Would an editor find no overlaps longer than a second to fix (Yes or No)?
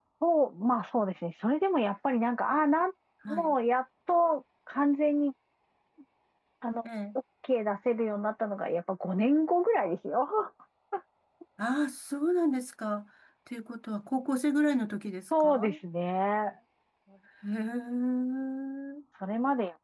Yes